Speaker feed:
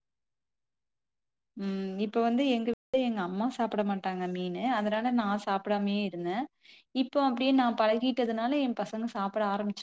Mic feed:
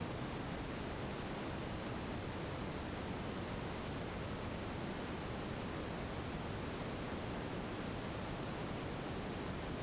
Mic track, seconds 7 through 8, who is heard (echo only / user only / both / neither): neither